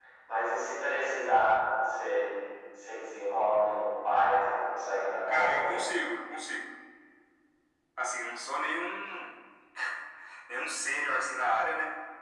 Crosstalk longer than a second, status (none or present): none